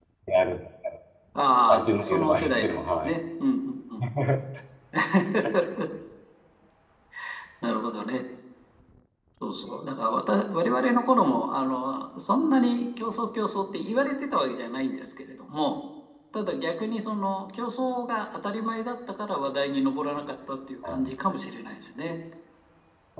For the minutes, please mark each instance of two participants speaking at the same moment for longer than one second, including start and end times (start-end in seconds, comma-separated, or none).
1.7-3.2